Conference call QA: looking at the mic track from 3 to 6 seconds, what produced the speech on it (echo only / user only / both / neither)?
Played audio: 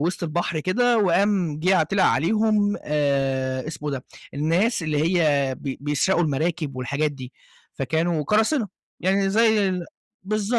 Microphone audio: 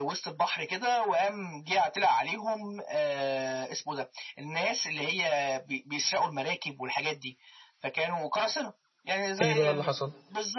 echo only